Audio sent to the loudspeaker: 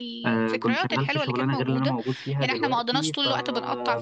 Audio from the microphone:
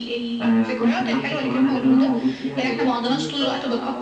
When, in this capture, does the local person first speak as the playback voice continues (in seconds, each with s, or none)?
none